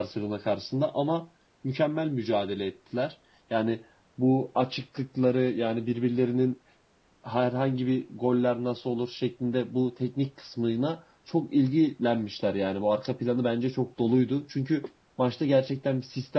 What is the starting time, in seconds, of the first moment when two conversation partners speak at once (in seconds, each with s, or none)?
none